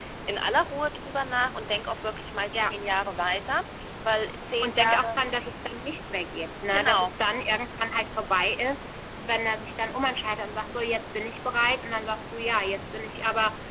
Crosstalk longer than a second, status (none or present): none